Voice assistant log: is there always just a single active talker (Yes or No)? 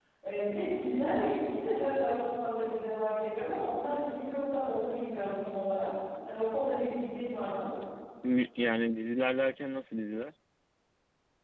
Yes